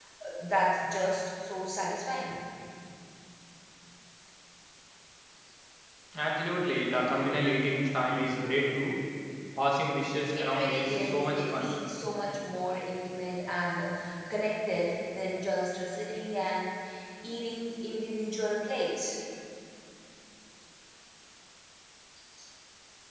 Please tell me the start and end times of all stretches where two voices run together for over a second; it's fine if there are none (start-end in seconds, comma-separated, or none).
10.3-11.7